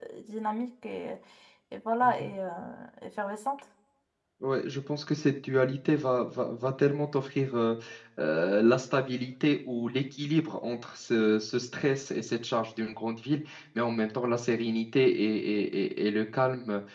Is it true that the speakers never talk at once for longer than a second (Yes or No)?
Yes